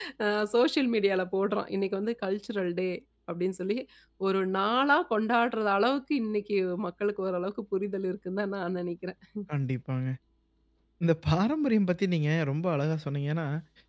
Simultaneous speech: No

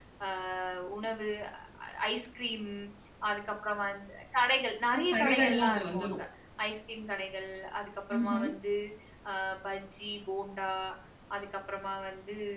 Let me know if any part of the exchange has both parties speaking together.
Yes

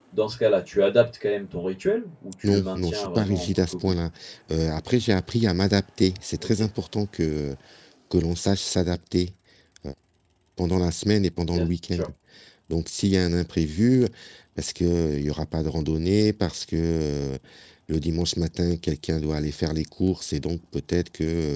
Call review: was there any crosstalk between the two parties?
Yes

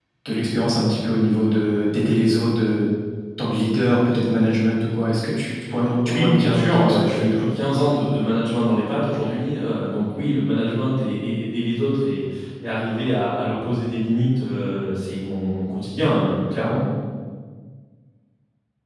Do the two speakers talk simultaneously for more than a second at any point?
Yes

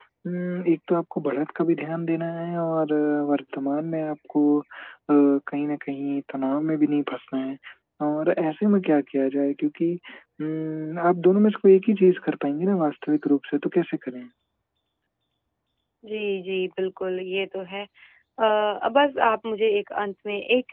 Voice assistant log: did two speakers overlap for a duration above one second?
No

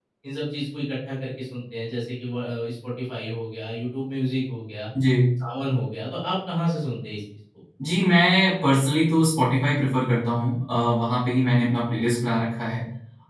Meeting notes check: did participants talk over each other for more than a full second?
No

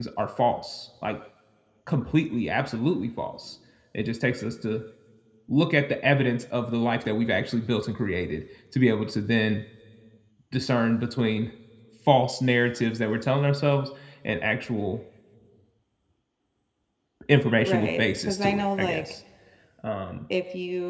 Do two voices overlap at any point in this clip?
Yes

